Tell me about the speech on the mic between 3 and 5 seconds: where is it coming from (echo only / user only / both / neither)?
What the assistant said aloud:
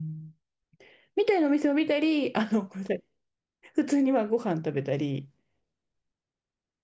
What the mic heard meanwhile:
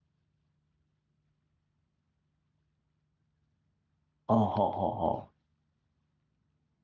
user only